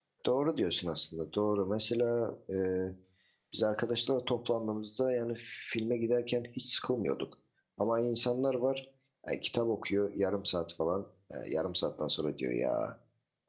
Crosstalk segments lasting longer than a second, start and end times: none

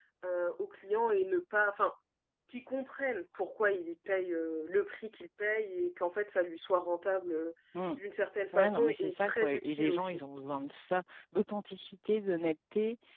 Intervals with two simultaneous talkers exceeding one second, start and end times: 8.5-10.2

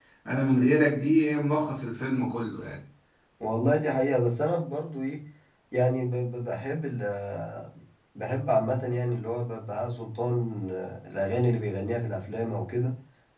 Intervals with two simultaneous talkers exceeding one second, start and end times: none

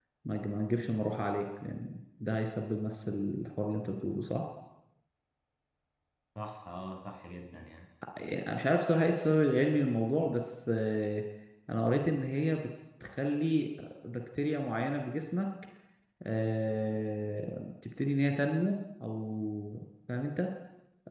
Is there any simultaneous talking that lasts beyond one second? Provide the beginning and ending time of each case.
none

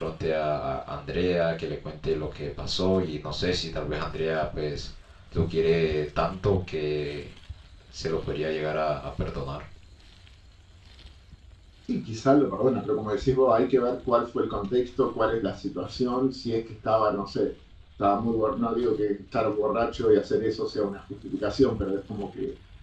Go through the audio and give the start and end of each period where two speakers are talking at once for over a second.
none

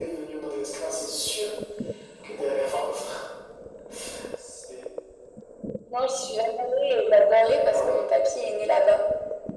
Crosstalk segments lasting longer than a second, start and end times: none

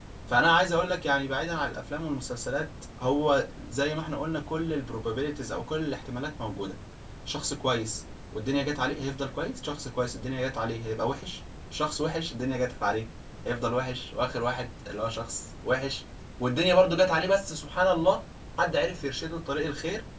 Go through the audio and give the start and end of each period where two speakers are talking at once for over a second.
none

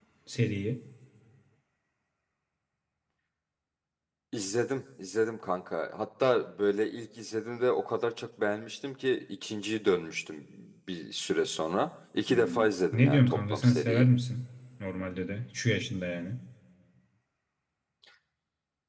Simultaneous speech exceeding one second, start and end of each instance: 12.3-14.1

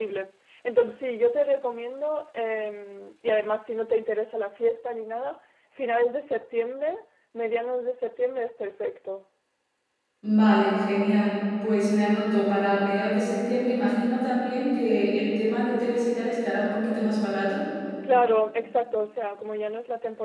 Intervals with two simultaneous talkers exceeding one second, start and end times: none

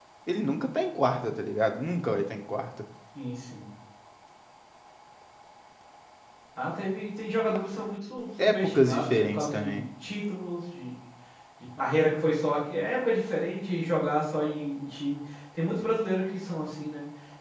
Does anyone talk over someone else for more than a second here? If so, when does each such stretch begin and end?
8.4-9.8

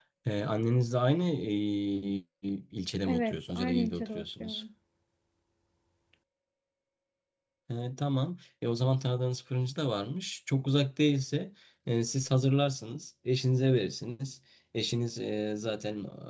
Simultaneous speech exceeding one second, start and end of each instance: 3.0-4.6

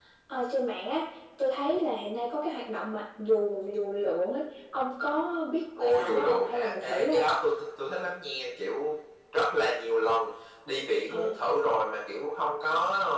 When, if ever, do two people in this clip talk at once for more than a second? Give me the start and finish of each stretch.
5.8-7.3

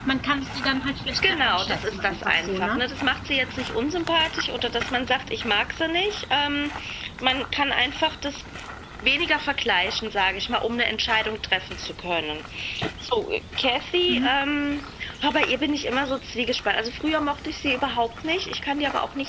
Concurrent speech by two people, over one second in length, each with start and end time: 1.3-2.8

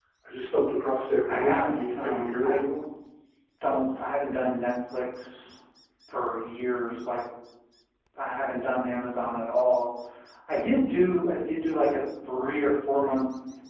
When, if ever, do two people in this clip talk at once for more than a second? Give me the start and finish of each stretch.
1.3-2.6

